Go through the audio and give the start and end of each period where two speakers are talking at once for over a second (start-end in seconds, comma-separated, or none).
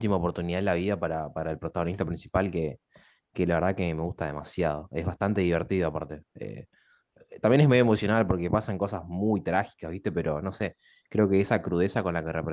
none